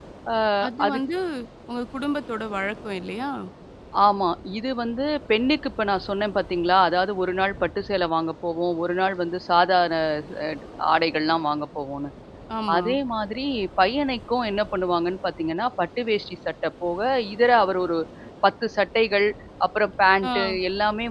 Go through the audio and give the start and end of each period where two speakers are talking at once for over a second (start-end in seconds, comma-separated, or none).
none